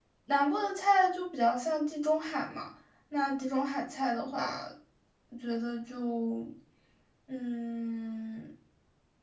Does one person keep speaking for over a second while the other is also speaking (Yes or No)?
No